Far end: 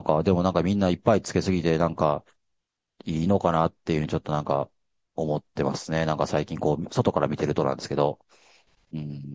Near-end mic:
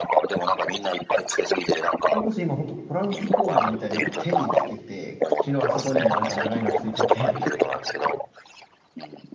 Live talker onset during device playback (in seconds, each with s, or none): 2.1 s